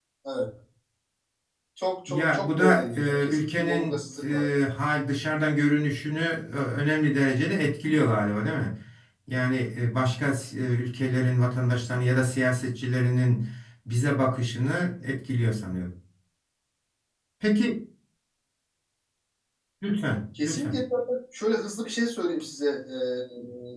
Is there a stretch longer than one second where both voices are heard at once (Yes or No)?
Yes